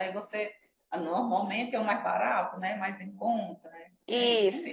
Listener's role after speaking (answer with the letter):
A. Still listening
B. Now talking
B